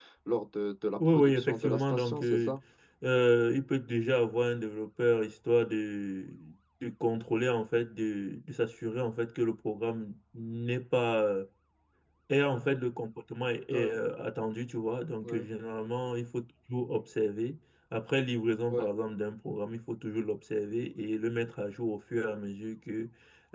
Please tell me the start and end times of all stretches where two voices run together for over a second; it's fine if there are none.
1.1-2.5

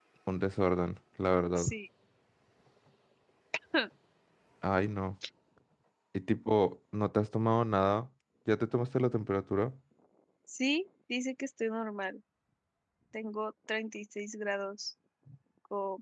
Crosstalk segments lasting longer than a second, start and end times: none

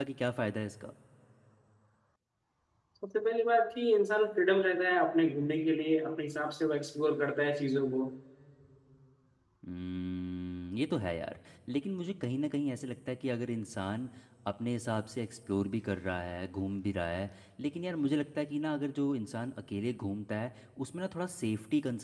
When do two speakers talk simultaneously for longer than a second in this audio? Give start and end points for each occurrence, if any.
none

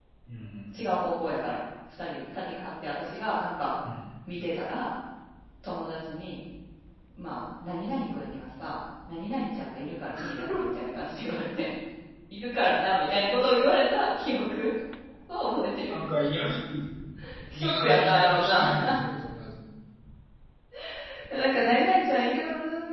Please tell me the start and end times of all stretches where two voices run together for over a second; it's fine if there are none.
17.5-18.9

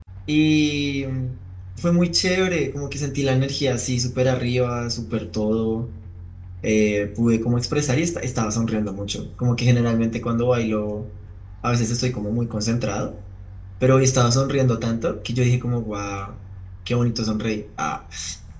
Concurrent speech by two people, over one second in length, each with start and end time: none

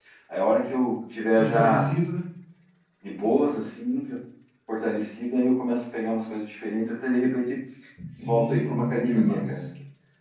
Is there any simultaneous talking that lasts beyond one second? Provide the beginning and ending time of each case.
8.2-9.5

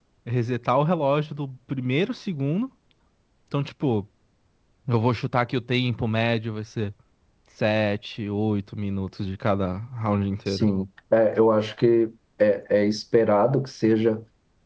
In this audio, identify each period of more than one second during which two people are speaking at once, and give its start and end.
none

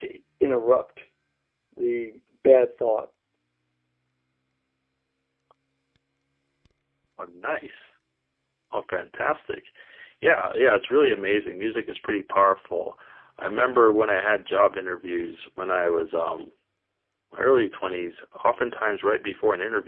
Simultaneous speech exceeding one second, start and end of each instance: none

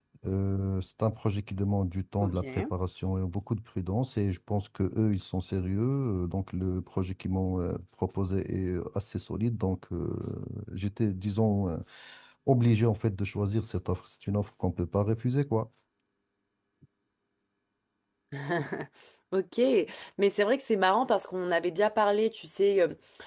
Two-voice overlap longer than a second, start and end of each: none

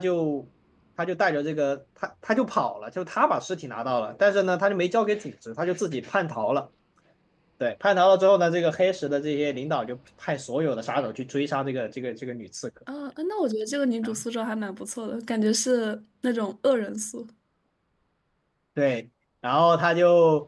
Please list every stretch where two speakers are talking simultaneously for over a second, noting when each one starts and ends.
none

